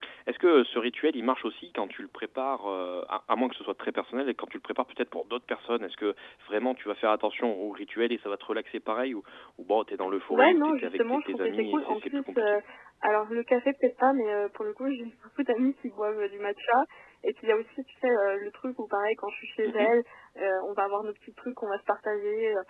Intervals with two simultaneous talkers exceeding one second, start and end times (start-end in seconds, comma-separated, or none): 10.3-12.6